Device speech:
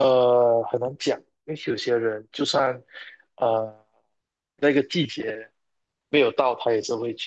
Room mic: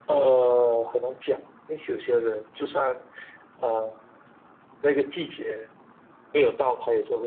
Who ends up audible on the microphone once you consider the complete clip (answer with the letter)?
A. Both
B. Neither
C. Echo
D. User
C